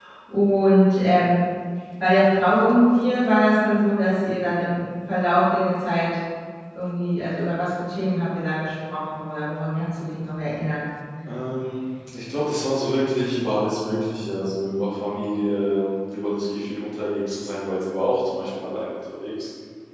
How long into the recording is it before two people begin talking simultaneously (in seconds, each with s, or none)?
none